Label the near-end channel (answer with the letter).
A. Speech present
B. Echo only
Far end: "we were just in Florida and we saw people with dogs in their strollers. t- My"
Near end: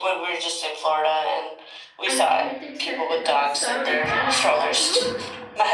A